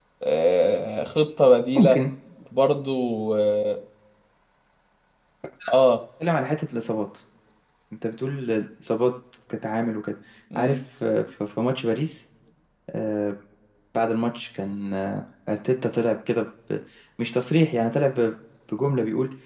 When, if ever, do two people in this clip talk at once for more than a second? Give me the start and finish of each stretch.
none

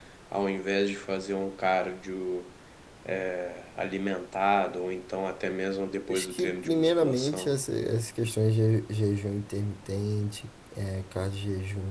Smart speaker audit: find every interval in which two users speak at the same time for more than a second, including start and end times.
6.1-7.5

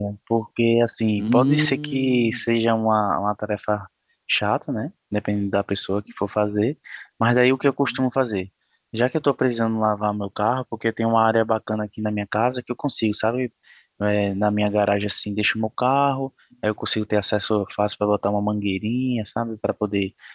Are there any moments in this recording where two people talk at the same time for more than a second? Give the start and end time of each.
1.2-2.4

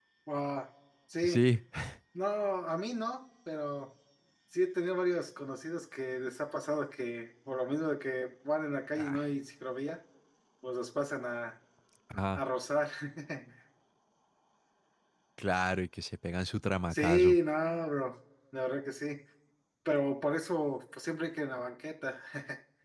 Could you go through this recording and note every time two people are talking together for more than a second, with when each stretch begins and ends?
none

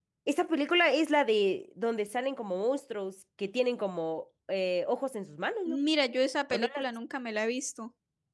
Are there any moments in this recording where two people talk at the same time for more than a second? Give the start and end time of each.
none

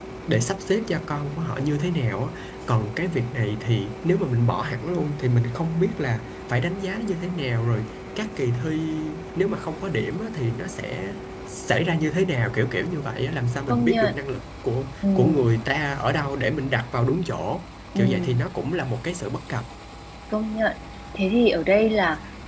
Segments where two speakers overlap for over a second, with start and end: none

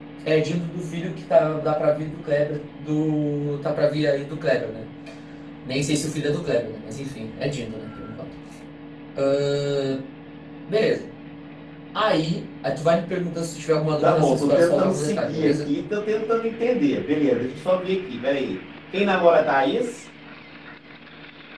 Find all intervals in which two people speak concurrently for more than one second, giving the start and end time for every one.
14.0-15.5

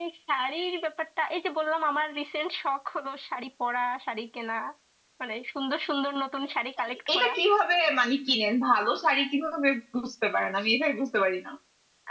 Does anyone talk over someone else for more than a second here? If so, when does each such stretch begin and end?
none

